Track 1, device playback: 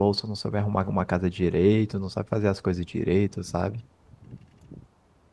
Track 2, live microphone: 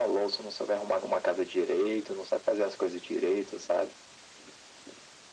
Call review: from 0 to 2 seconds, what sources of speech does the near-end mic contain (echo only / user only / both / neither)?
echo only